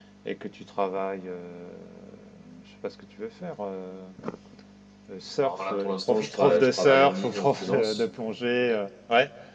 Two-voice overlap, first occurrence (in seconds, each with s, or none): 5.4 s